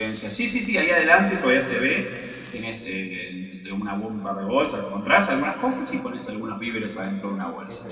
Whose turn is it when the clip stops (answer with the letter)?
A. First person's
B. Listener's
B